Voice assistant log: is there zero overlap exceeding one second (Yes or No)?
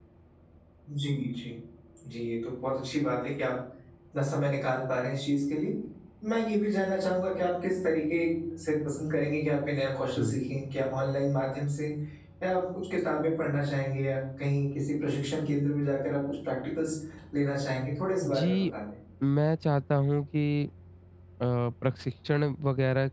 Yes